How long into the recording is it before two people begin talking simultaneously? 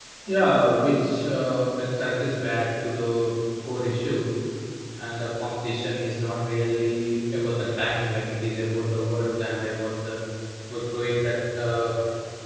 none

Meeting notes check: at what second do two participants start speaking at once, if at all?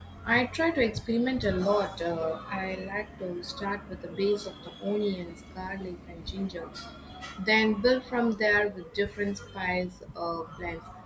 none

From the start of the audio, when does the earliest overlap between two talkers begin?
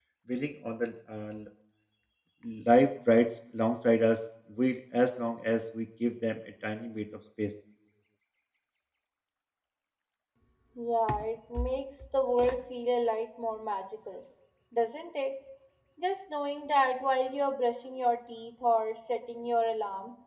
none

